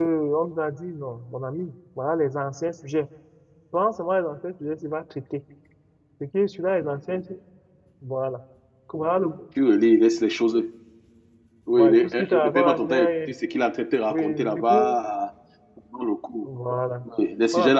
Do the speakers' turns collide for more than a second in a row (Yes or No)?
Yes